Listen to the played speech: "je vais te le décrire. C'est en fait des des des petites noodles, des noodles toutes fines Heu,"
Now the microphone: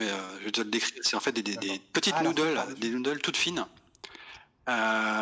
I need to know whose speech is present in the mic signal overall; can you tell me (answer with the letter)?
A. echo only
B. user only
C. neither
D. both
D